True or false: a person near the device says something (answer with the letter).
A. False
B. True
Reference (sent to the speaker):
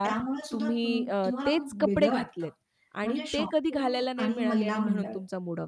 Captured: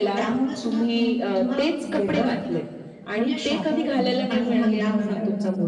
B